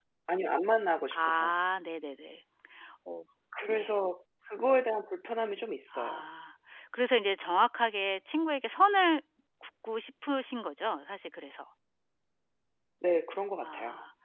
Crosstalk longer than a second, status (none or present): none